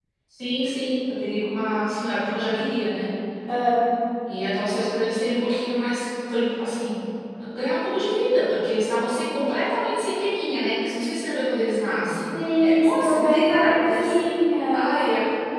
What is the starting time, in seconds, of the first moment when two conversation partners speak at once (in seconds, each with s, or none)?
12.6 s